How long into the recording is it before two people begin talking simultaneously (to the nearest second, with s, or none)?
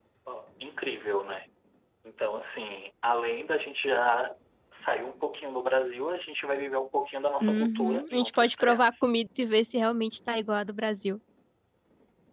7 s